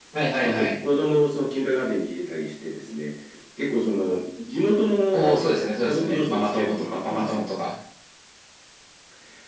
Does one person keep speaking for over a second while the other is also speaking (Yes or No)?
Yes